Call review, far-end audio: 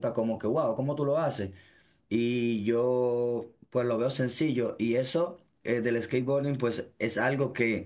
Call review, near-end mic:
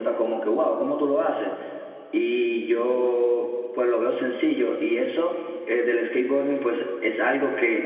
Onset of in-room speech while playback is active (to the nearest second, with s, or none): none